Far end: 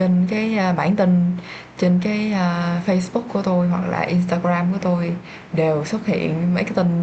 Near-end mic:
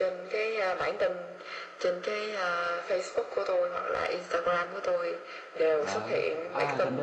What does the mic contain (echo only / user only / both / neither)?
both